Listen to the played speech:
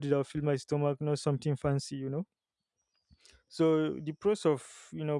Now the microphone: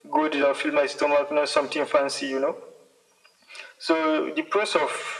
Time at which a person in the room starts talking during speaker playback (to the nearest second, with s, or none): none